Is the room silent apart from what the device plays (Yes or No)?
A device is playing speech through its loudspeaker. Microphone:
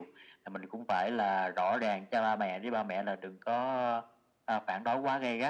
Yes